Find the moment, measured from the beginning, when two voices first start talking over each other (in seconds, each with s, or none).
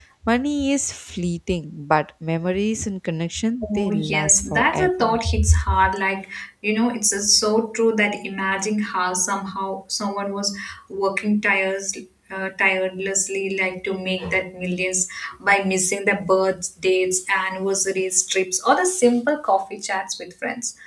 3.6 s